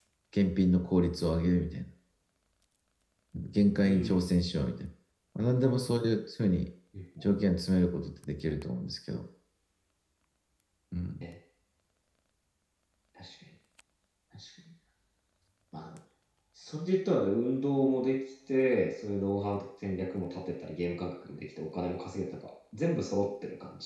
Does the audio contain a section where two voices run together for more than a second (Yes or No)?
No